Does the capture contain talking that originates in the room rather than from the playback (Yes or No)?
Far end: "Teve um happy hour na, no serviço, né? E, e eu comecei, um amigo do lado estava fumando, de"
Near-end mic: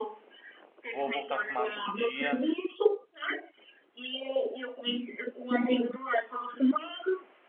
Yes